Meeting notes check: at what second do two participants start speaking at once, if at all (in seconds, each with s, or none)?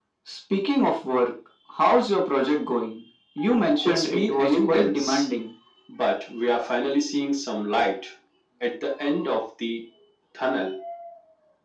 3.8 s